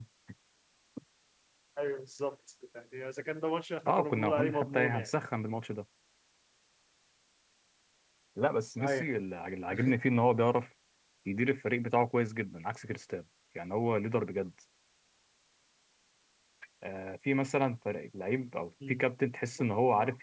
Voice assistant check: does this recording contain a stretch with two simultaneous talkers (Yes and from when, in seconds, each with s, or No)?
Yes, from 3.9 s